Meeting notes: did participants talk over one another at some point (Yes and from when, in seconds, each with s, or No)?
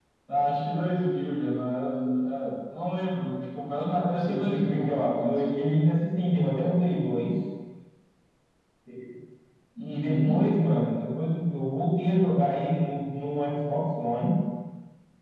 Yes, from 4.2 s